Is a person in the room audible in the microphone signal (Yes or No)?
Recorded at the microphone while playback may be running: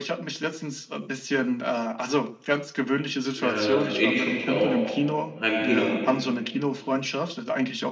Yes